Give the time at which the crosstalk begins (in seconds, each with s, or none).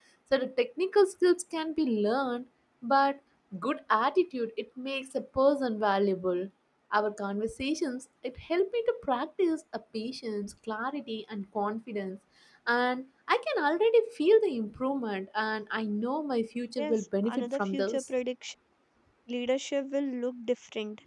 16.8 s